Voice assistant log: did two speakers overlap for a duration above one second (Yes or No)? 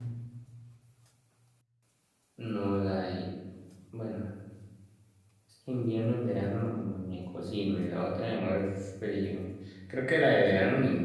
No